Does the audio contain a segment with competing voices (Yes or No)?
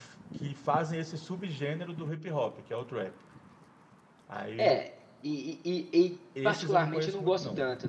Yes